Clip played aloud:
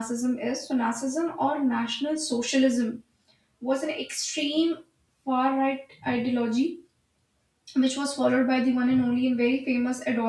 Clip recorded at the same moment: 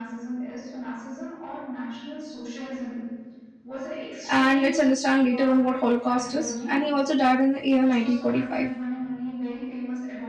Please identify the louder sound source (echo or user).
user